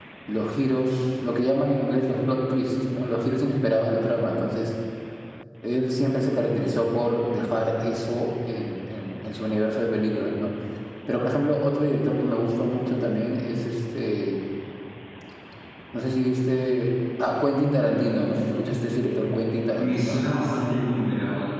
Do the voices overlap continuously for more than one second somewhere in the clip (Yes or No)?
No